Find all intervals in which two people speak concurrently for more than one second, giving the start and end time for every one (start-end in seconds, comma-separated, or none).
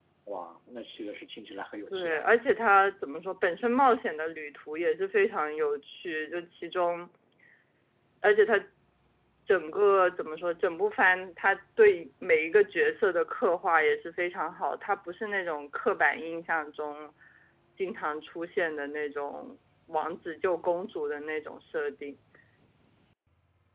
none